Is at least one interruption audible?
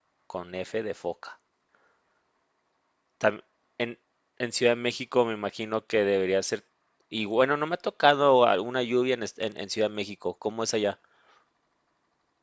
No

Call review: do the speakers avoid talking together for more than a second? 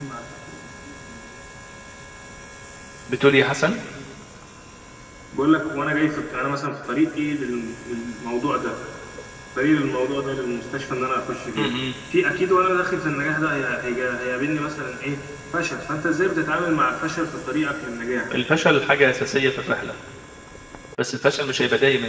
Yes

